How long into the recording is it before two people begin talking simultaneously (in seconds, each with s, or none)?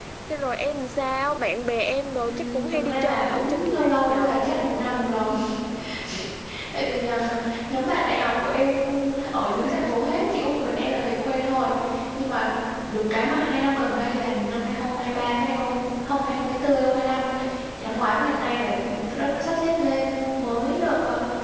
2.2 s